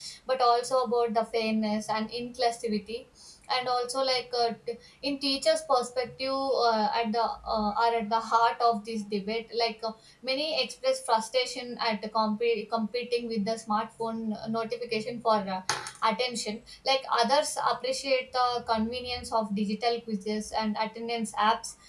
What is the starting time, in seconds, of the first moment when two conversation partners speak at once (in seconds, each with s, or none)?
none